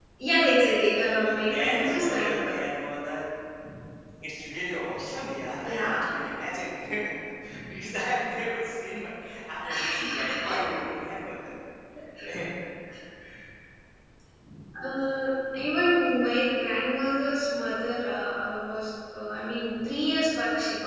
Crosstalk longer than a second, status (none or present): present